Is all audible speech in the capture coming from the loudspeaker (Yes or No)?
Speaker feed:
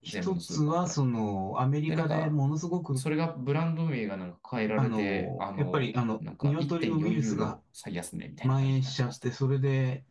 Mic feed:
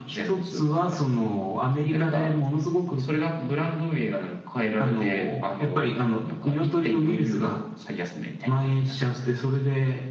Yes